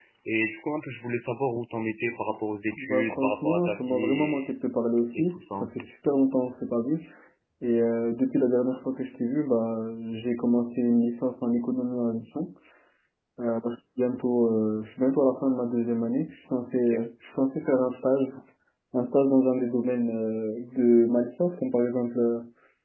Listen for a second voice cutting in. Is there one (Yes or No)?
Yes